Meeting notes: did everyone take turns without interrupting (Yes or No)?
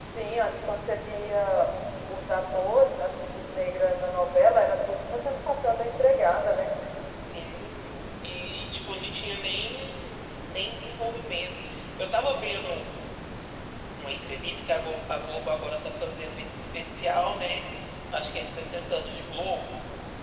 Yes